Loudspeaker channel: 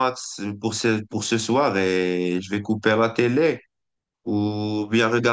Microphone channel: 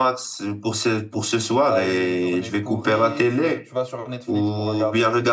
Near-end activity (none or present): present